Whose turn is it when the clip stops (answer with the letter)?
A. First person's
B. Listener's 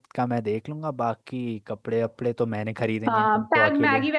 B